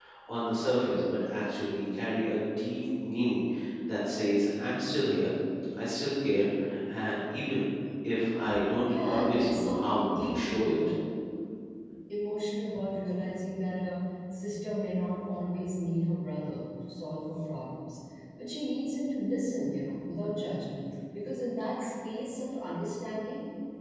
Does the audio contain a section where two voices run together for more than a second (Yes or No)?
Yes